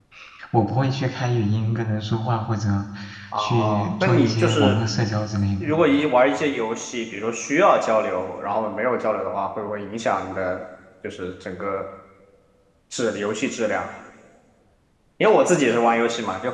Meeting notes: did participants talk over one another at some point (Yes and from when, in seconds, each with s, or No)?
Yes, from 3.4 s